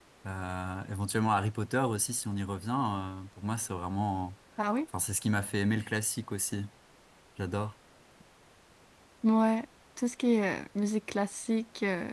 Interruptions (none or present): none